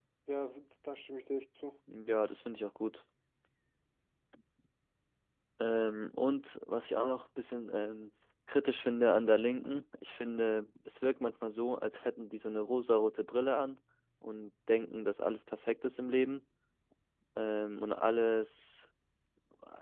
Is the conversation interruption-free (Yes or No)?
Yes